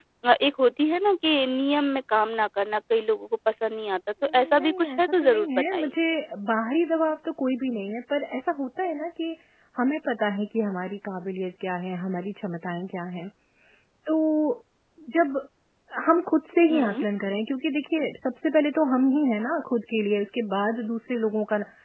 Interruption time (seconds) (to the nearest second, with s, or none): 4 s